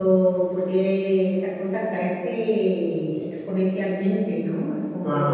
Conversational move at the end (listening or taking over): taking over